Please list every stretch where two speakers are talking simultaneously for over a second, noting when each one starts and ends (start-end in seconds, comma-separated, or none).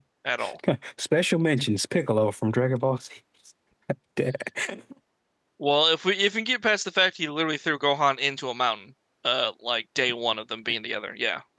none